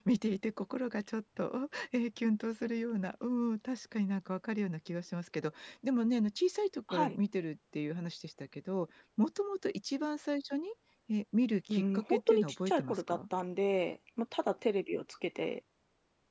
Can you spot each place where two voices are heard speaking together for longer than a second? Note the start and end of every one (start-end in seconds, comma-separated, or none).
11.7-13.2